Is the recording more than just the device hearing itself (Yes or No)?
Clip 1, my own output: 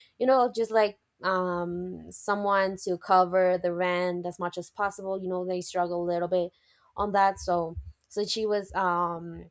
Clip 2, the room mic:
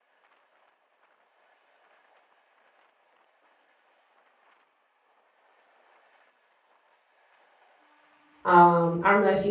Yes